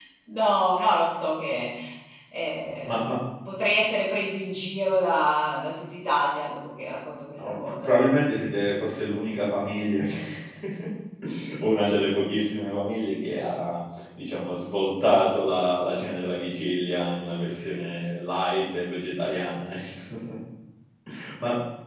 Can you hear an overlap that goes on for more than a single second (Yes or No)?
No